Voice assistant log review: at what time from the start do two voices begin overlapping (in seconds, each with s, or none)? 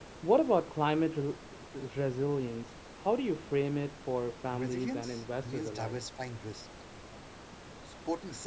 4.5 s